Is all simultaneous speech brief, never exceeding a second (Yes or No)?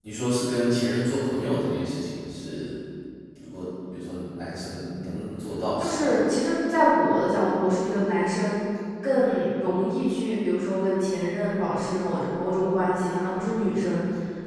Yes